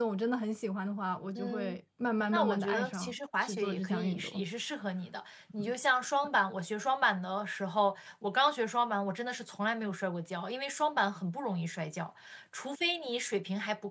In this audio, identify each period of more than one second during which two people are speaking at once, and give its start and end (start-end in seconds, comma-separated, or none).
2.3-4.5